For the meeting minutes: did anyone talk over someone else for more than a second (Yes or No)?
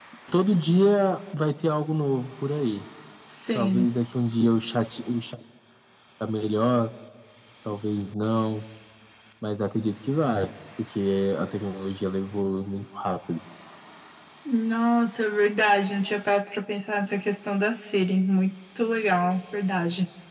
No